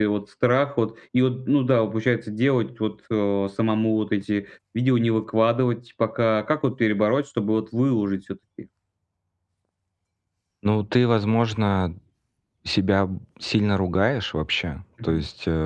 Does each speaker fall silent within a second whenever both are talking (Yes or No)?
Yes